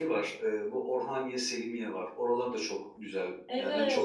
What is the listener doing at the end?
taking over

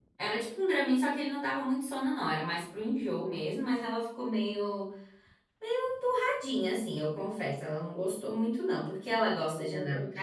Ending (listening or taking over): listening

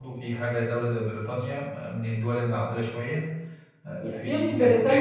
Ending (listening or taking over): taking over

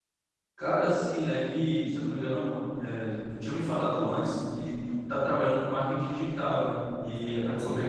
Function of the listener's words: listening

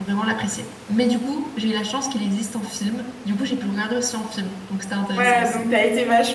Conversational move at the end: taking over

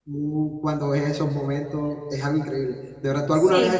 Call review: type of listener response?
listening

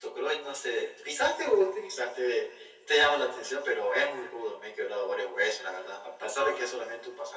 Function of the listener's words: listening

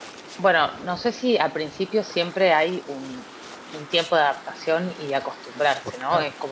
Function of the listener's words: listening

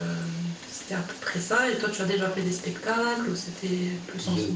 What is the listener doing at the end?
taking over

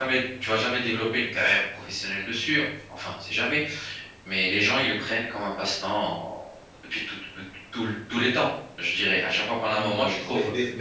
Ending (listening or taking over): taking over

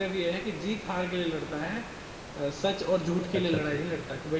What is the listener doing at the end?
listening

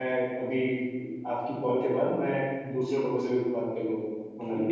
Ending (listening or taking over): taking over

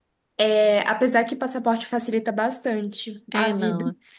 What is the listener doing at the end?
taking over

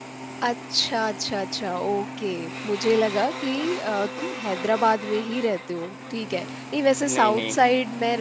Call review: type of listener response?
listening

